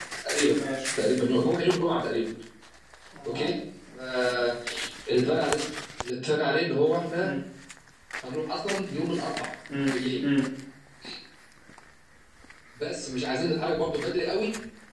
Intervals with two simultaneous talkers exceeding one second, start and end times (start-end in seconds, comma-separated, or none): none